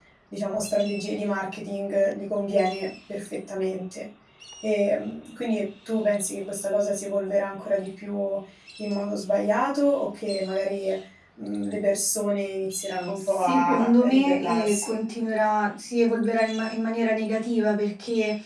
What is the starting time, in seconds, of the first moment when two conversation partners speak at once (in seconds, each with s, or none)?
13.2 s